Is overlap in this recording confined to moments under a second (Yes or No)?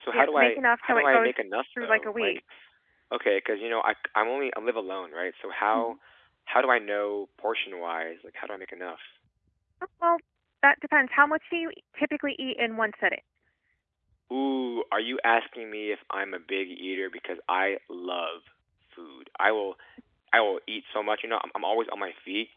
No